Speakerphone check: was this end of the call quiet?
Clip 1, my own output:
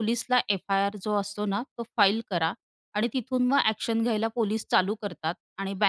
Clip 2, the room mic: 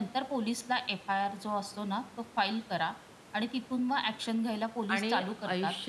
No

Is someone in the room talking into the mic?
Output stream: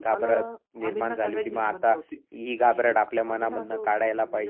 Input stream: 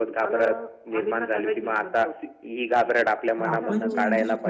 Yes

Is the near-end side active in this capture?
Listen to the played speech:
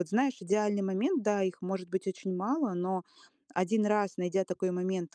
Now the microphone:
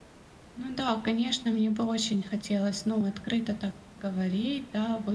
Yes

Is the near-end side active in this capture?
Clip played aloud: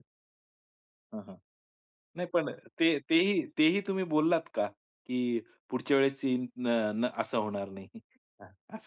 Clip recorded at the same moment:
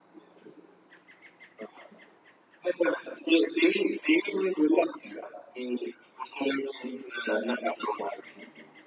No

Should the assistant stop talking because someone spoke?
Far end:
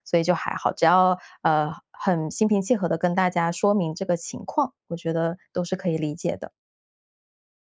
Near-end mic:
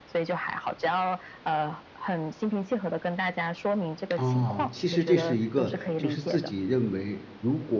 Yes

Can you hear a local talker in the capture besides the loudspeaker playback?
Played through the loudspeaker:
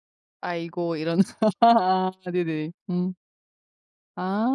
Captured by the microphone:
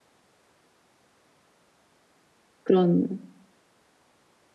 Yes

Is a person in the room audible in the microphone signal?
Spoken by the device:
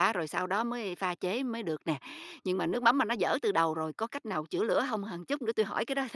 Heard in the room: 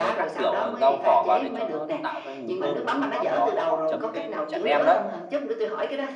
Yes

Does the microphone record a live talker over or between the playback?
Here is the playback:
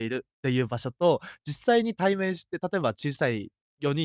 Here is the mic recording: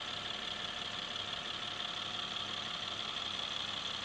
No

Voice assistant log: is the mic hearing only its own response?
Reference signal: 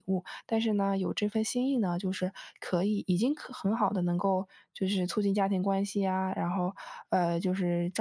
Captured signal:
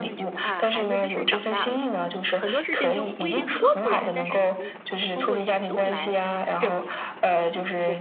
No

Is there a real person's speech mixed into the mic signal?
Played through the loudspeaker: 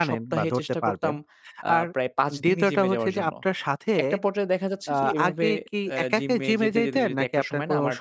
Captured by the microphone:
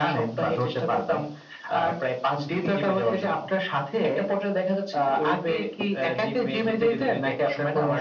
No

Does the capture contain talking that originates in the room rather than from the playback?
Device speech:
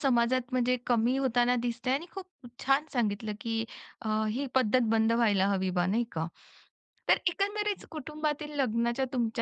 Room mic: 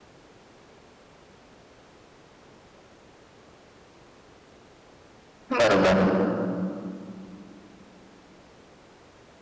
Yes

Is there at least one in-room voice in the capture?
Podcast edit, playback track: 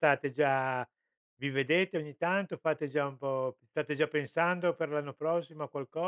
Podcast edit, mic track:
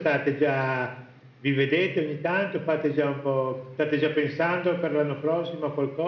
No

